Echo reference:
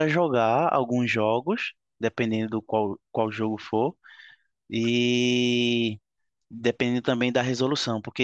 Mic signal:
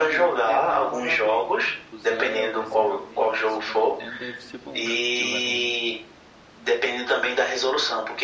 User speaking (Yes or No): Yes